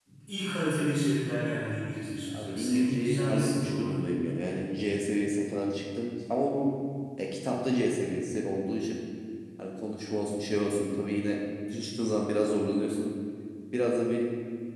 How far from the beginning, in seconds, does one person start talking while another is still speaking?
2.3 s

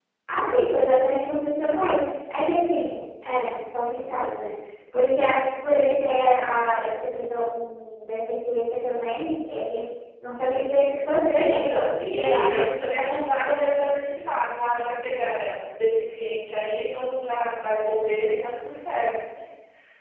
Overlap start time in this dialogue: 11.4 s

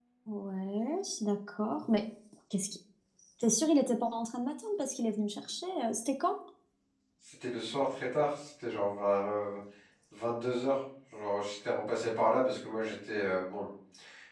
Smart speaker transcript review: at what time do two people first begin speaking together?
none

